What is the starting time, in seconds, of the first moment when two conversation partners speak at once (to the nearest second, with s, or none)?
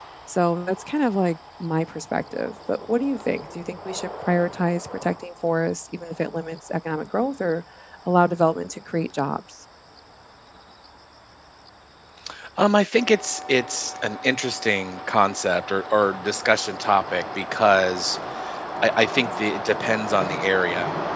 none